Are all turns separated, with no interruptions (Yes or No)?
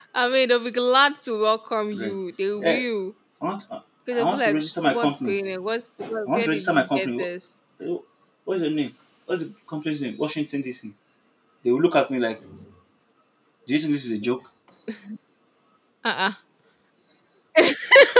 No